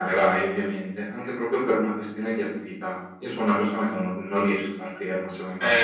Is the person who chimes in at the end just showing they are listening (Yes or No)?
No